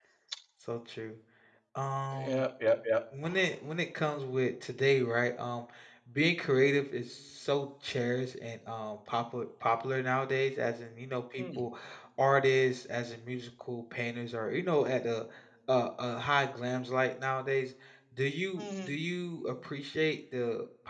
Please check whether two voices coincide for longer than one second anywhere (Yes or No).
No